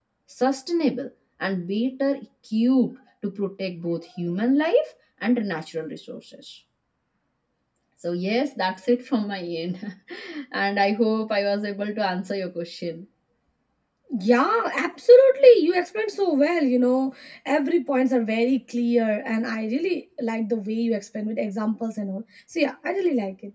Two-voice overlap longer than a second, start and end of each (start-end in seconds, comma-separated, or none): none